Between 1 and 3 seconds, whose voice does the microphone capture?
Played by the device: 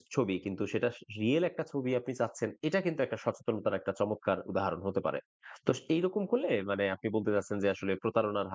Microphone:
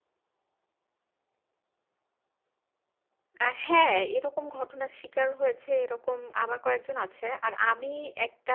neither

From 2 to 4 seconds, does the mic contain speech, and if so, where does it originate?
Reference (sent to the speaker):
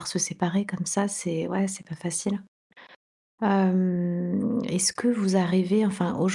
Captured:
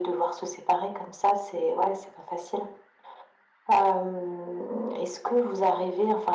echo only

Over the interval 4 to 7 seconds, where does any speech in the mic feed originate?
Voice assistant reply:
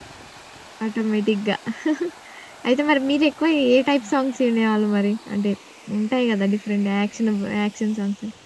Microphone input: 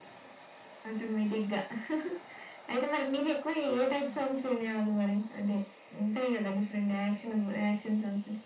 echo only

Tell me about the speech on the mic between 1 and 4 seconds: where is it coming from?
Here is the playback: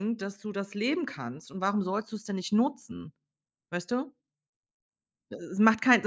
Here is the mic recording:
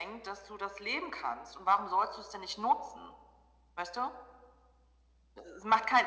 echo only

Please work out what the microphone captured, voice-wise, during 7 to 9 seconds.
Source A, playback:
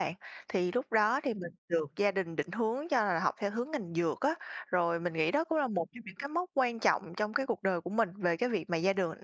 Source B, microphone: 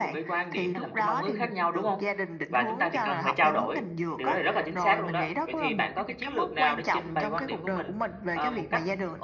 both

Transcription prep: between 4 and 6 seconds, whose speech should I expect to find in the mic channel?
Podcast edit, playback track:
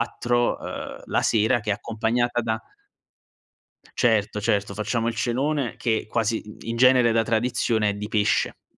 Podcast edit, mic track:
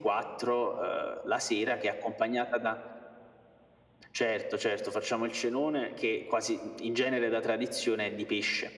echo only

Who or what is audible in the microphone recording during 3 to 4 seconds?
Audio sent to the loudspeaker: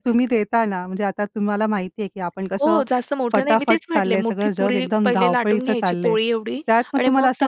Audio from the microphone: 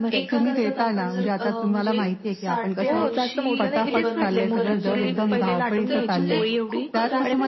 both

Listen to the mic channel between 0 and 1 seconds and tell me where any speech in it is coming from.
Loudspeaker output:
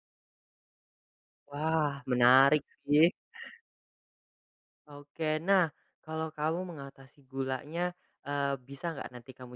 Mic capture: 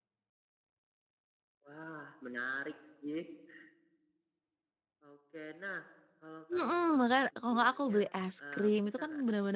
neither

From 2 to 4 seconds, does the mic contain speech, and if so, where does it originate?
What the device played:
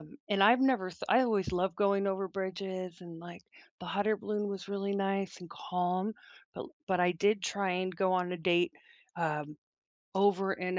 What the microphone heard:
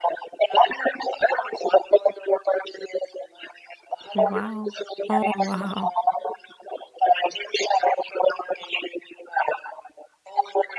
echo only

